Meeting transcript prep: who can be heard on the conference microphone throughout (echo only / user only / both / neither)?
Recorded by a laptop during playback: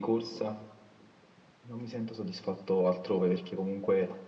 echo only